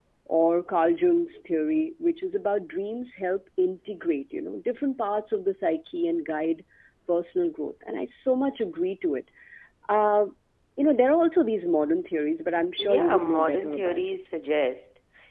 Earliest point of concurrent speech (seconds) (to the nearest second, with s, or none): 13 s